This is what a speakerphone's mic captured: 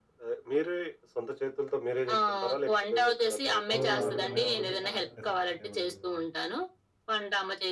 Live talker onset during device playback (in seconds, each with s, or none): 3.7 s